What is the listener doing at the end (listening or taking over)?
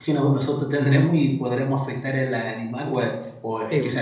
listening